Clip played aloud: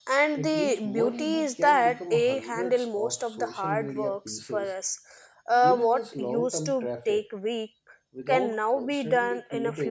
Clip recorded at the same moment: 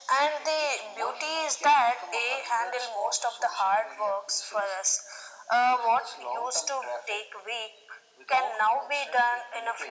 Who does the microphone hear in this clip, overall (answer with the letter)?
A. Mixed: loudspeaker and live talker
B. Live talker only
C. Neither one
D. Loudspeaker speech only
D